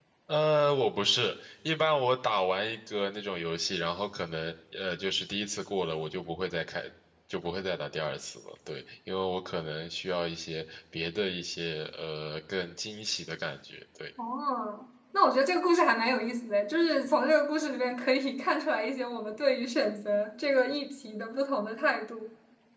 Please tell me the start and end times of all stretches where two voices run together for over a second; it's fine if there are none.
none

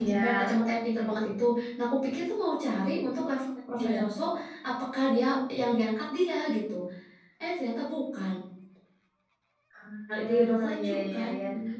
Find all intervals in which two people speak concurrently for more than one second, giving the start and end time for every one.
10.1-11.3

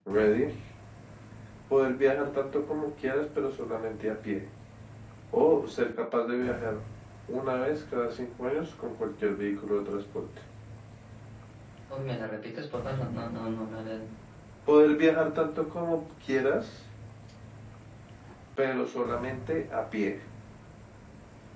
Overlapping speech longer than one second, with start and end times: none

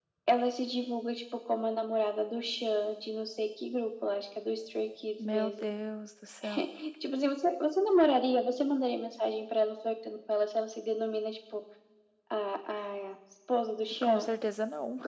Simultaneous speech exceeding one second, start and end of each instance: none

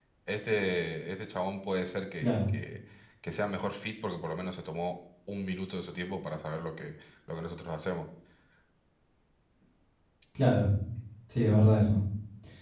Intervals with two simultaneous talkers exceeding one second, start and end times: none

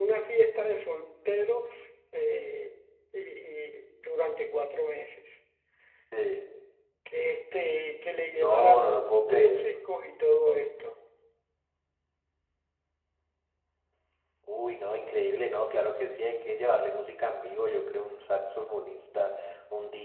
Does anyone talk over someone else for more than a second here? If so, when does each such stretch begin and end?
8.3-9.6

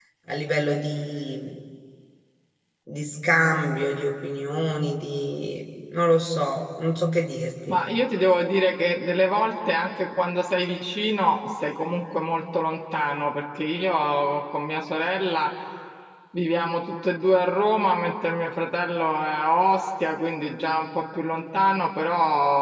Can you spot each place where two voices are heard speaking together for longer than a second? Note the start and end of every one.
none

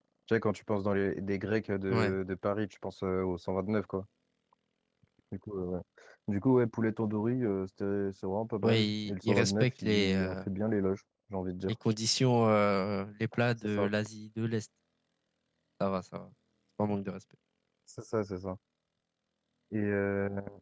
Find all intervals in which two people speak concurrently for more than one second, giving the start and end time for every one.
8.6-10.3

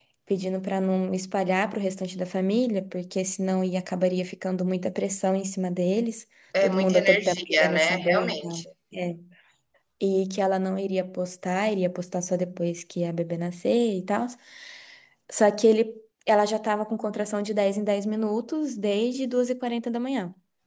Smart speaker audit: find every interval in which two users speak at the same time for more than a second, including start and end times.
6.6-8.6

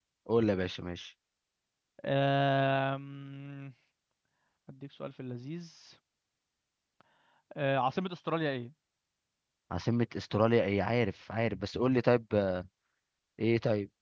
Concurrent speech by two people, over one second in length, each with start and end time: none

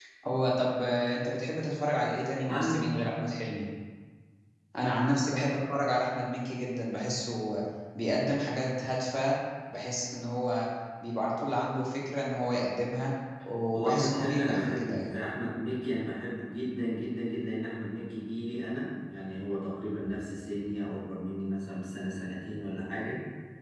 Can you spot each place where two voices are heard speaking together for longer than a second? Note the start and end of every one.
13.7-15.1

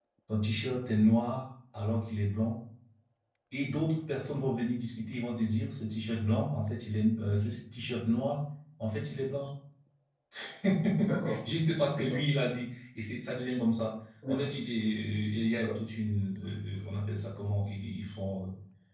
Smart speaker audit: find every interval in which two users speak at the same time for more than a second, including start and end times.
none

